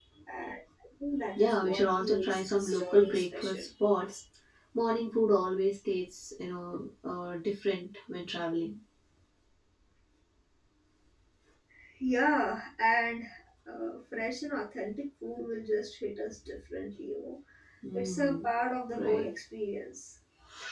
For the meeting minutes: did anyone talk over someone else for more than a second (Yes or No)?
Yes